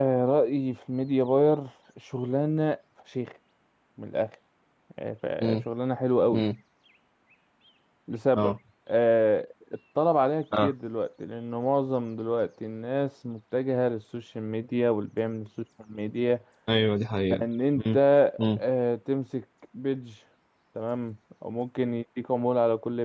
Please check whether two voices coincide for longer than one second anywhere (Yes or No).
No